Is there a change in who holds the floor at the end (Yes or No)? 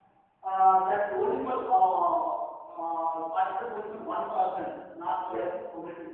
No